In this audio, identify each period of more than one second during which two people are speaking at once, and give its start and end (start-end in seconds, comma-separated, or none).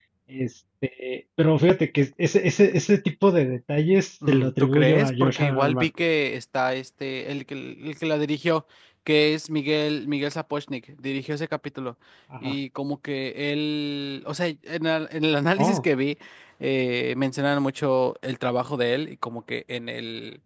4.3-5.9